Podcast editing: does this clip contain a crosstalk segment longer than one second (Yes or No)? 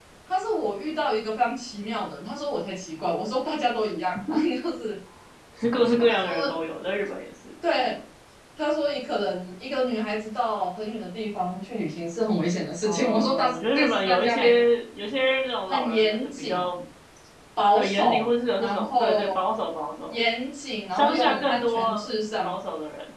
Yes